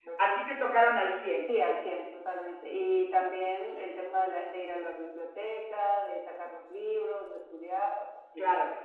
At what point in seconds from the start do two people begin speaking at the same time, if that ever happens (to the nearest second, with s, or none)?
none